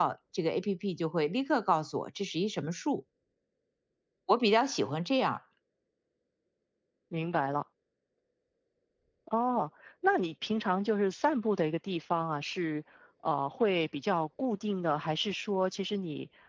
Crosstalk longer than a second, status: none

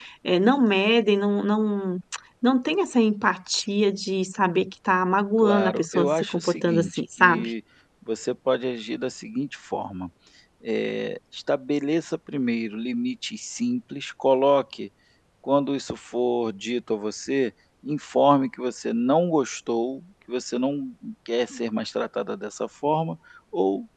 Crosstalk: present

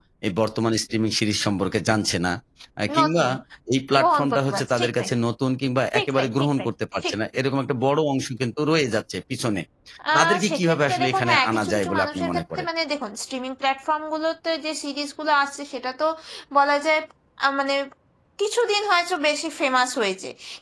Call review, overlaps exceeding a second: present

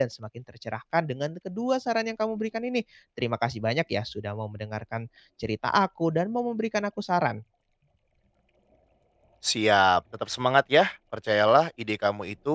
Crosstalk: none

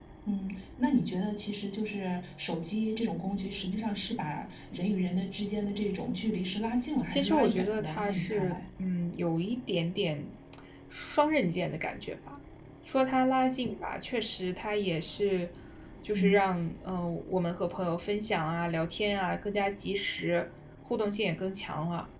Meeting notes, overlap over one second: present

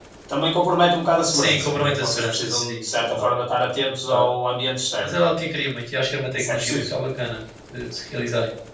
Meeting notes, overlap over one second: present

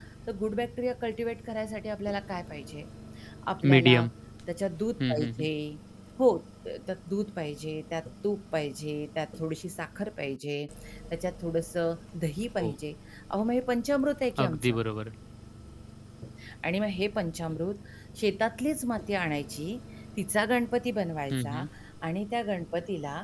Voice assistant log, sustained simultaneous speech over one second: none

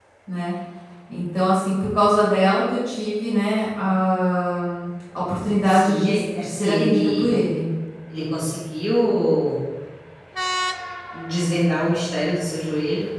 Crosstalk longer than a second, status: present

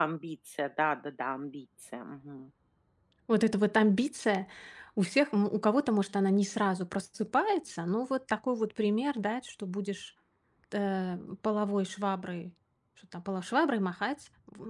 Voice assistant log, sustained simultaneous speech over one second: none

